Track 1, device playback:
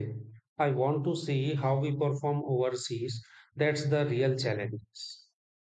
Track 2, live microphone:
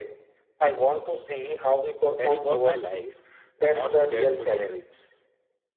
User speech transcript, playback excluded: That is what I like. Not scared to take risks.

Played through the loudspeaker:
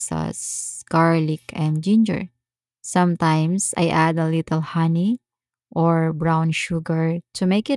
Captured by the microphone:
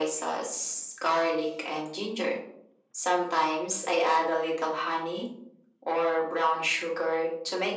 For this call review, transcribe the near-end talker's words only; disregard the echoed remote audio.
none

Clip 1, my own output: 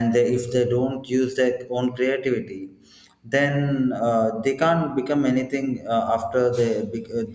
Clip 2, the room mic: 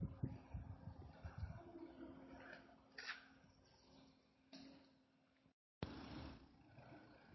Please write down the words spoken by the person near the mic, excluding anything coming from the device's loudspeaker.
none

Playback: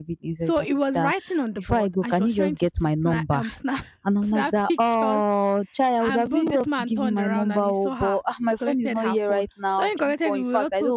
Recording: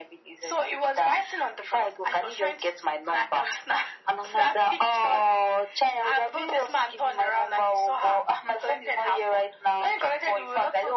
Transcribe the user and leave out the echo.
none

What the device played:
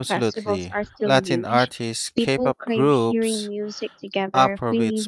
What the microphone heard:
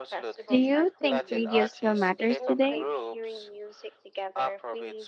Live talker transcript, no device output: do you think radio still matters today,

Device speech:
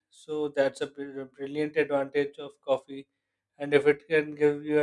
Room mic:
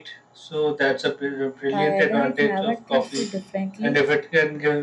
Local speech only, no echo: tired, and it never treats you differently.

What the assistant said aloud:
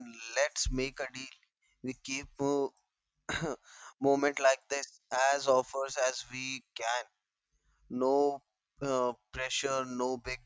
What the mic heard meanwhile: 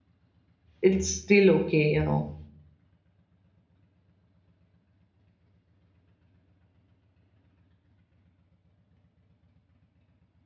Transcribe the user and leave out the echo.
it's still okay, you know.

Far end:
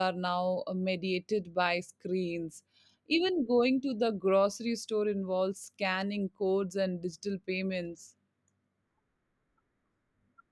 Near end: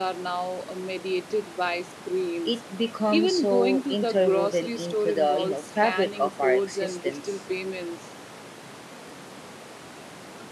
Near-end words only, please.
It becomes so interwoven into the you know fabric of our existence.

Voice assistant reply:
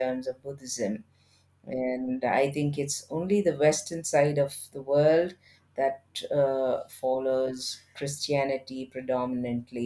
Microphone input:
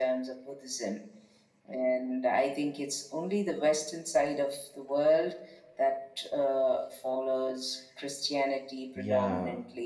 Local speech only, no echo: Yeah,

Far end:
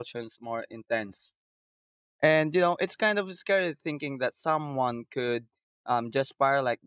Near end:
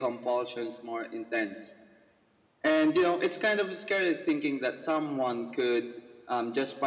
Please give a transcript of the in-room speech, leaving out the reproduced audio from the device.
none

